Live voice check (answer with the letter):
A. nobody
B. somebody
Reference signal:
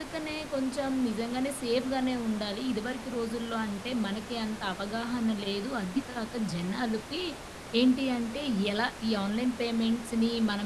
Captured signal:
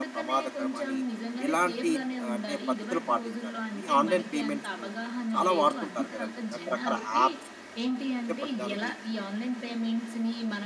B